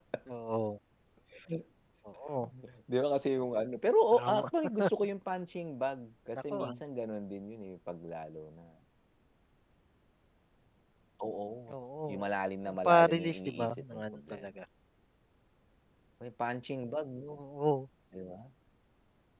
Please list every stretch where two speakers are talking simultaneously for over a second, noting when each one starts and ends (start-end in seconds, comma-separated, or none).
12.6-14.6